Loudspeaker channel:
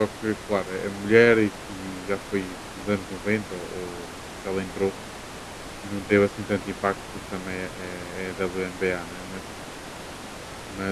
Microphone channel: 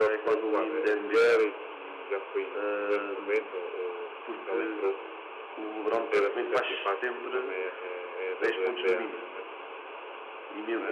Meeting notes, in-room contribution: present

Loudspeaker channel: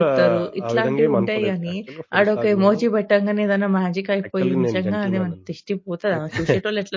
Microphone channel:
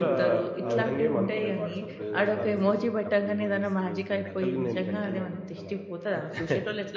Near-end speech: present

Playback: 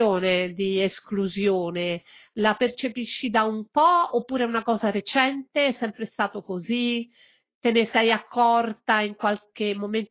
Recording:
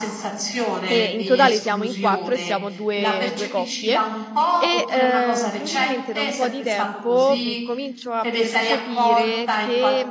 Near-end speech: present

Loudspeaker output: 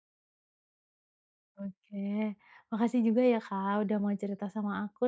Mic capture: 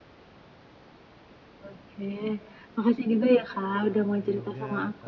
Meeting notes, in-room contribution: present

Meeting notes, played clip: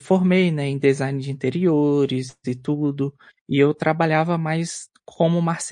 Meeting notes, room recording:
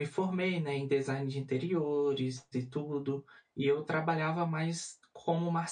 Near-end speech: none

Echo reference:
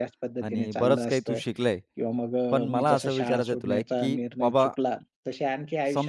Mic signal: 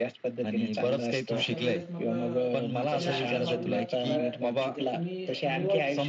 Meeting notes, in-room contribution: present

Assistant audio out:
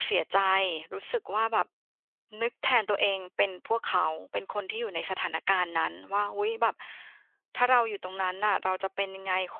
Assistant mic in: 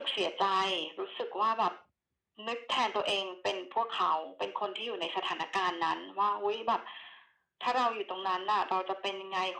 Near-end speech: none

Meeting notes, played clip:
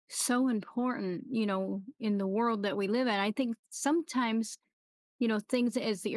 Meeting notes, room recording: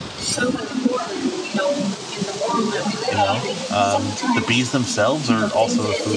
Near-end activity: present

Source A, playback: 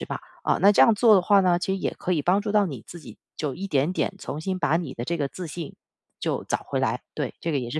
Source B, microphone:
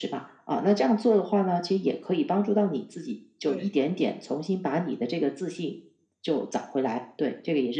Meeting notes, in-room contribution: present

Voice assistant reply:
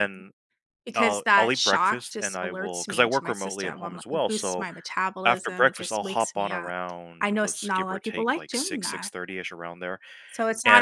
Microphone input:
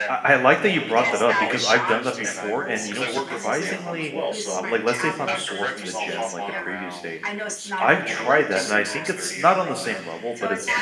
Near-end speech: present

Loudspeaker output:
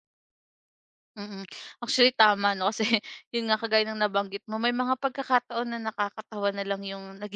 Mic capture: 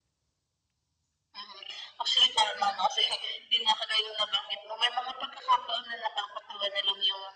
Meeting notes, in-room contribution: none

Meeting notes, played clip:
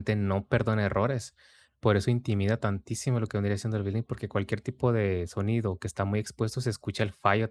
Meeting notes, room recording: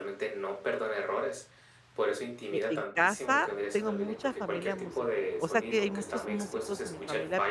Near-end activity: present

